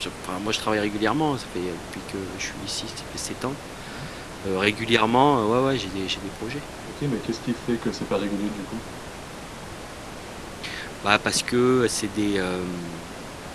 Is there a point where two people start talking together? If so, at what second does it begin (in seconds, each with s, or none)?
none